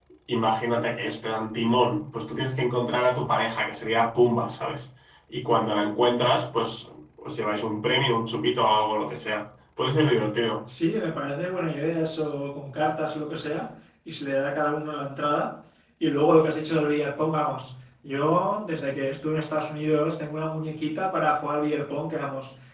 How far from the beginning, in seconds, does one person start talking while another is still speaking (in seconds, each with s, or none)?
none